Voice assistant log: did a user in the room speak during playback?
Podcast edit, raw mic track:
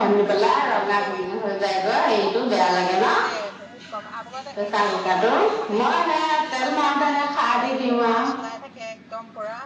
Yes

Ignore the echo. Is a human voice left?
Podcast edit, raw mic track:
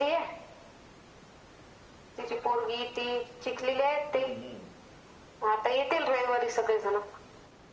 Yes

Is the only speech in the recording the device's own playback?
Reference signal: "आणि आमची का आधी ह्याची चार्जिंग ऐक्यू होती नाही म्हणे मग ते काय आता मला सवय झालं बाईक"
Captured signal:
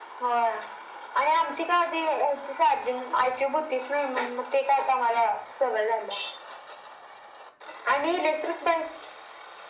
Yes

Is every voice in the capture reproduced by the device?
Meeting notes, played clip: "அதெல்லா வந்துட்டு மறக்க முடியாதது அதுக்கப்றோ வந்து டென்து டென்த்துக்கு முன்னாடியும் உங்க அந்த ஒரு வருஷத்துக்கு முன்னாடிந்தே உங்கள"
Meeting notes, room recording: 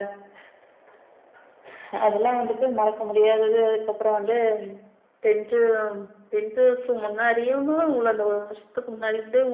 Yes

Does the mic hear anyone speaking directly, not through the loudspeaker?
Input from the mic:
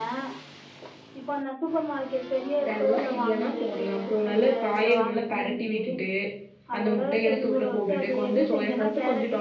Yes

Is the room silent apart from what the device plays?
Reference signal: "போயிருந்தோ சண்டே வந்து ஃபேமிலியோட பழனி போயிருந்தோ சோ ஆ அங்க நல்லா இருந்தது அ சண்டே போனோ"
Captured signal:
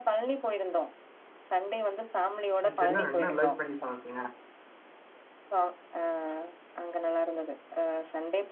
No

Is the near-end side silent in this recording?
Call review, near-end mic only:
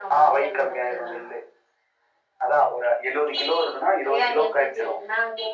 Yes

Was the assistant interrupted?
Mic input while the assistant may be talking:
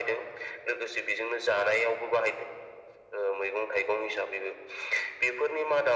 No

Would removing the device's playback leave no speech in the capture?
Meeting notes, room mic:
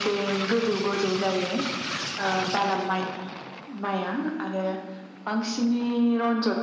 Yes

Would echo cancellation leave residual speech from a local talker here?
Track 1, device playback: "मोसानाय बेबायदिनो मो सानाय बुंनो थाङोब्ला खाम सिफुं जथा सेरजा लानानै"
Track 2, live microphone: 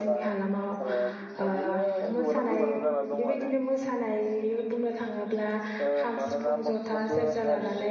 Yes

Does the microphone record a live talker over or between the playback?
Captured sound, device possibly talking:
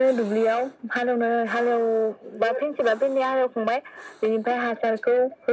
No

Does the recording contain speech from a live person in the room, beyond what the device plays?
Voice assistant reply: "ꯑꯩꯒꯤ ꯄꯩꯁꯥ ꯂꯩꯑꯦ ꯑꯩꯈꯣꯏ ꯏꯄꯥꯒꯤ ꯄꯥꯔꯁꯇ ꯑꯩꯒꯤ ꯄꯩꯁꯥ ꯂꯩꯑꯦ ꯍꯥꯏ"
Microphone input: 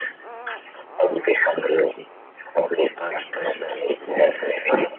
No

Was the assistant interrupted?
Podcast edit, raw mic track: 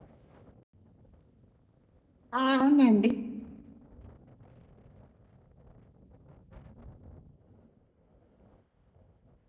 Yes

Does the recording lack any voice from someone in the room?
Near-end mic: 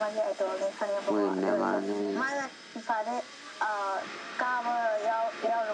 No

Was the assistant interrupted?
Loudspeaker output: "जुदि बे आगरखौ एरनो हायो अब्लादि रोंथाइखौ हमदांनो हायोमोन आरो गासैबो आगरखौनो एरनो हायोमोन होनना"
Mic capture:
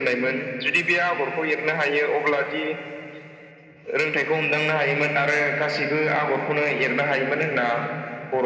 No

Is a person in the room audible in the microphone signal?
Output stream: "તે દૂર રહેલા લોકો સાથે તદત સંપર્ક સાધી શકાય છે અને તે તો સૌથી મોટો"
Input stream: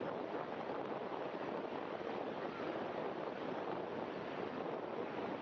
No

